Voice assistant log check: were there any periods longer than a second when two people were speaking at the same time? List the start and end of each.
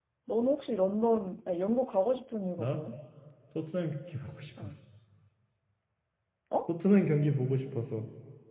none

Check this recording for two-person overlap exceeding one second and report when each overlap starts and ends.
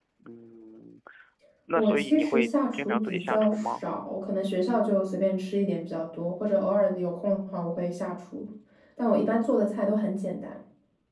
1.8-3.8

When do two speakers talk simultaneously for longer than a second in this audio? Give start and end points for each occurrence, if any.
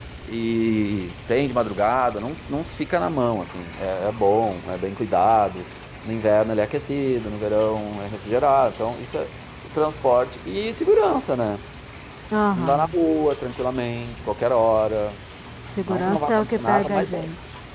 15.9-17.3

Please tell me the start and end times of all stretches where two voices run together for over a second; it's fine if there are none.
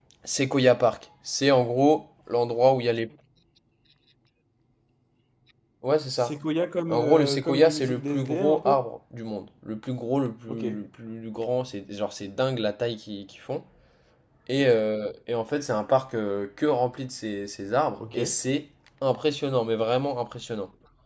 6.9-8.8

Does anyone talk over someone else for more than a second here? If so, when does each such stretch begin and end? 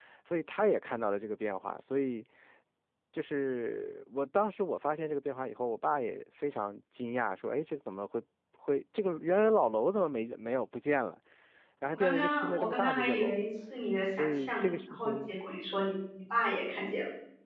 11.9-13.4, 14.2-15.4

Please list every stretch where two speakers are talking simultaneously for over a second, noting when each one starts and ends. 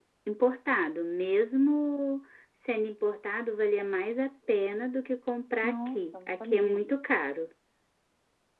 5.6-7.2

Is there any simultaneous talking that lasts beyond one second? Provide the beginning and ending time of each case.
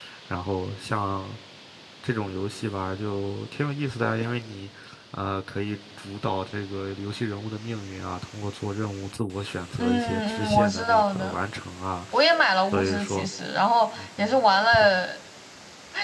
9.8-11.4

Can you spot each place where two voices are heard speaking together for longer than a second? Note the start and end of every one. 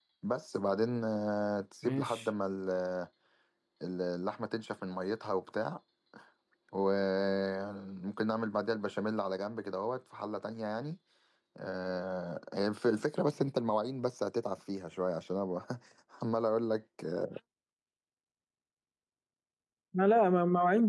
none

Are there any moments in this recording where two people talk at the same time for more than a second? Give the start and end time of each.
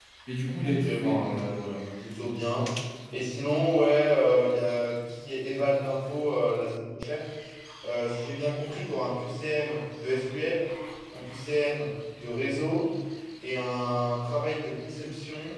0.7-1.9

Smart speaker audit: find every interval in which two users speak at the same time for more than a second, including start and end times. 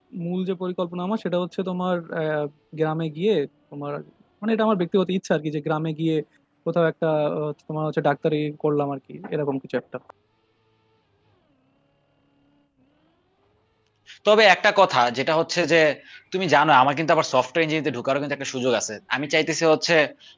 none

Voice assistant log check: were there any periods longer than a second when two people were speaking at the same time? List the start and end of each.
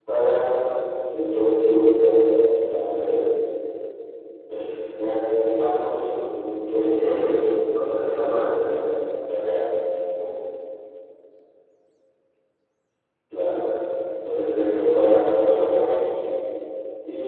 6.8-8.7

